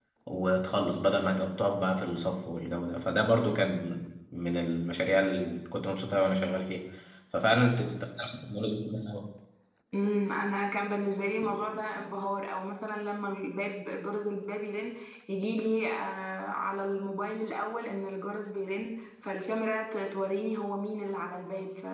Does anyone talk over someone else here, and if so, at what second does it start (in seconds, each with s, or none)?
none